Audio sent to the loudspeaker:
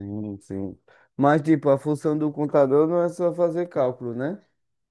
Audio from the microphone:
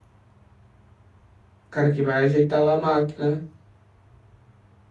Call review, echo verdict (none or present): none